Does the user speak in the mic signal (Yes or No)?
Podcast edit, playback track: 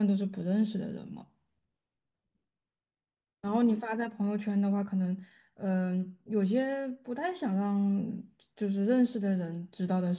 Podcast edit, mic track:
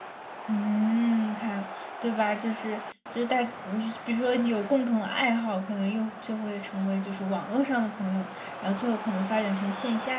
Yes